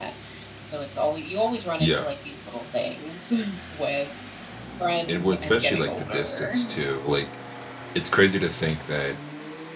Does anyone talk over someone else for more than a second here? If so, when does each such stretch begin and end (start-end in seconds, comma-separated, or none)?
5.1-6.5